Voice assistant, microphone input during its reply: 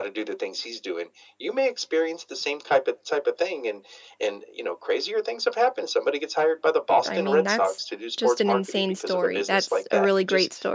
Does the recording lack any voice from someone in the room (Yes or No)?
No